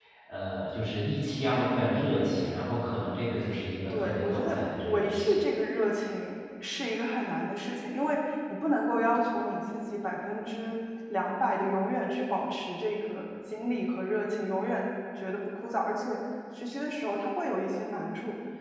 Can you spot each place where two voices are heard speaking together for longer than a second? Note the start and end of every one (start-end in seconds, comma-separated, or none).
3.9-5.4